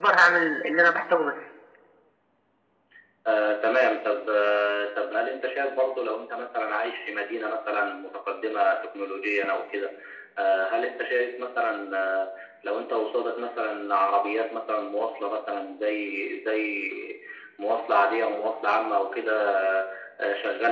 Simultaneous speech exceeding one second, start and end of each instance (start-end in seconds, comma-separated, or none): none